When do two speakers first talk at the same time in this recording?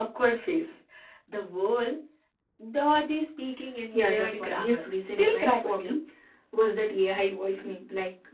3.9 s

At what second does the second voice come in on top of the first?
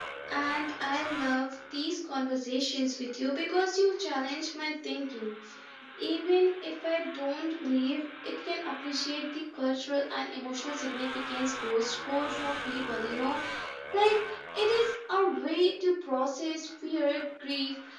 none

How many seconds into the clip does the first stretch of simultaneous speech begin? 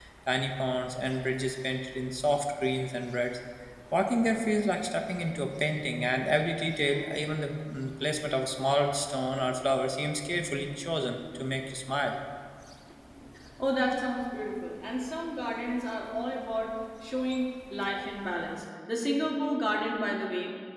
none

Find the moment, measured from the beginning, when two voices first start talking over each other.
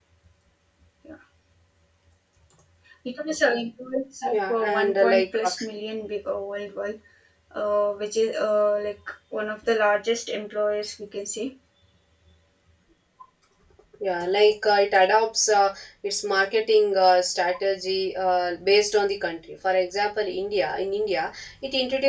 4.3 s

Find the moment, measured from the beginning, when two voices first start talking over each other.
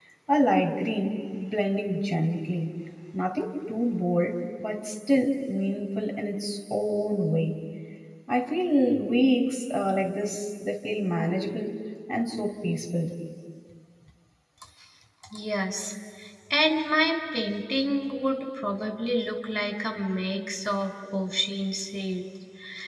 none

